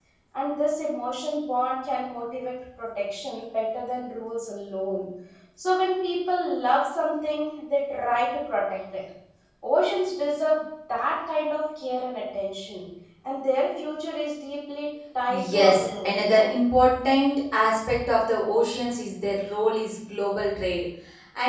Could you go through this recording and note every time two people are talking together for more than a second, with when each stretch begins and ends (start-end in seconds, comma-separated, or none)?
15.3-16.5